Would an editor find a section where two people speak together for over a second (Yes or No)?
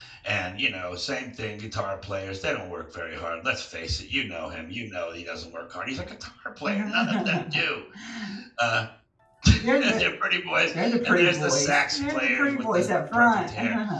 Yes